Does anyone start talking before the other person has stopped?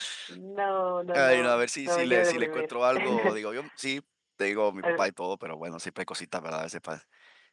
Yes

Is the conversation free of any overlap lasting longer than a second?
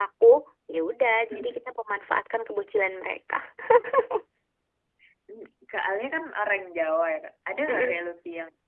Yes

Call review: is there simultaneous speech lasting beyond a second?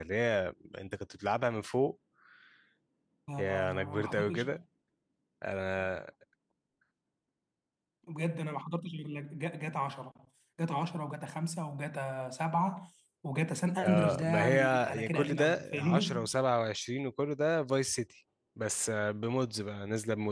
Yes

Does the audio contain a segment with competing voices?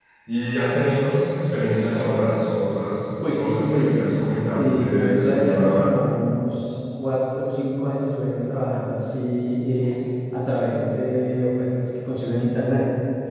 Yes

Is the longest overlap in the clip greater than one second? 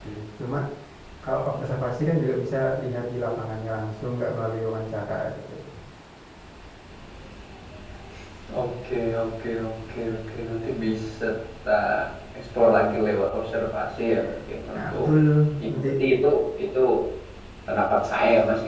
No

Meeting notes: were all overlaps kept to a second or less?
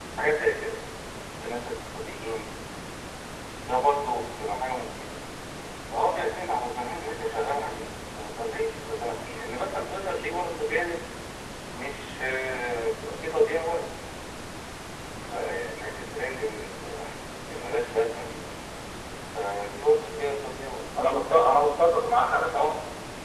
Yes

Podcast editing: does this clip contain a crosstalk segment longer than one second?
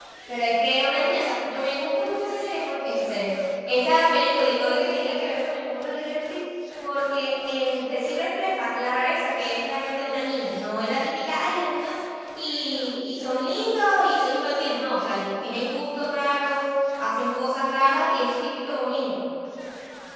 No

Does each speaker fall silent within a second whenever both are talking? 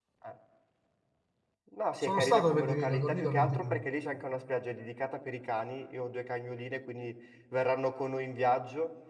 No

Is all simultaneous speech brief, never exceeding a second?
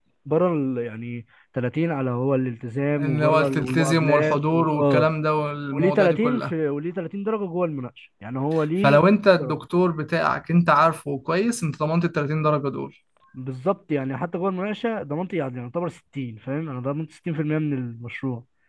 No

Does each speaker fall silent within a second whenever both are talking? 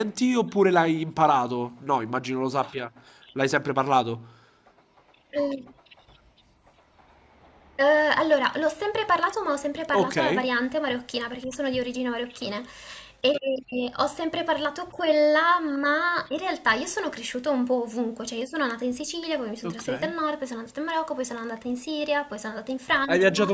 Yes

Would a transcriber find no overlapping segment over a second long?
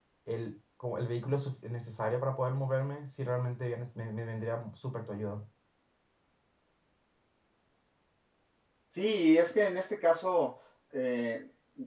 Yes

